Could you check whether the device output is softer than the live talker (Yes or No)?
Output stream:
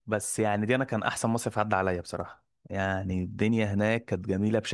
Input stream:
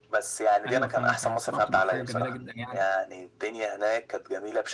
No